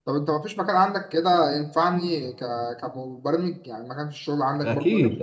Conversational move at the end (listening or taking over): taking over